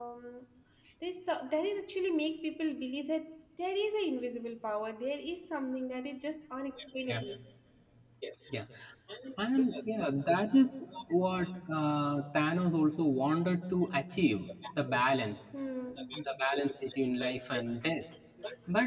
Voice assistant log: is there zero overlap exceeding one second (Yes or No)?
Yes